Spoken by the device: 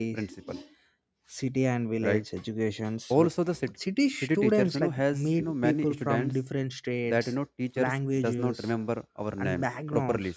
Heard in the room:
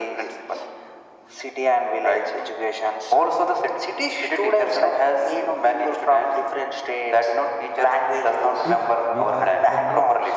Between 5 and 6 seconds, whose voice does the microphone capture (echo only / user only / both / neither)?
echo only